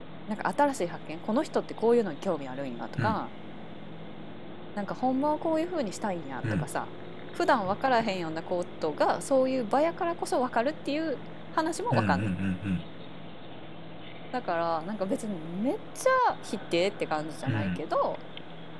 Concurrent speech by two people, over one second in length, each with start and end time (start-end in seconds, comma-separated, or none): none